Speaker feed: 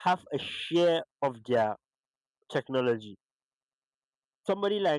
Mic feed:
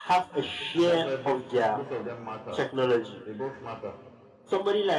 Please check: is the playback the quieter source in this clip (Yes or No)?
No